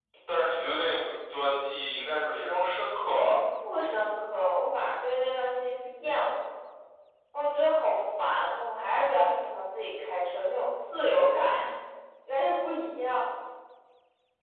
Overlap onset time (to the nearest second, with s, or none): none